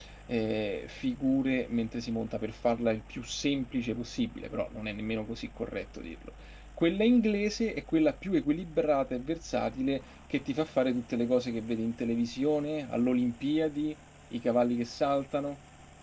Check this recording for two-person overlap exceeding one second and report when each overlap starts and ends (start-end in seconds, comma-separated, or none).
none